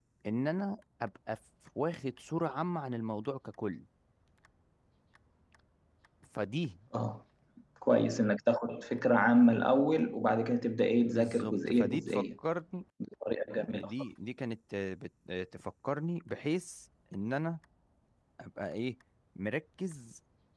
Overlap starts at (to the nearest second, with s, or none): 11 s